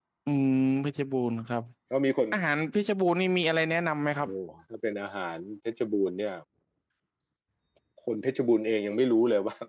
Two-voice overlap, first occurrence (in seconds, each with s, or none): none